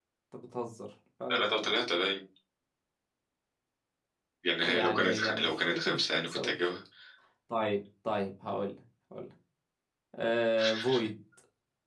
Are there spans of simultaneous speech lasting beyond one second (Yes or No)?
Yes